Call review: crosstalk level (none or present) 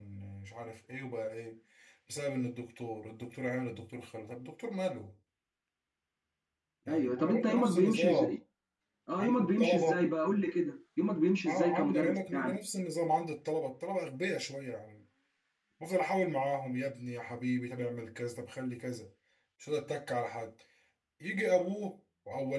present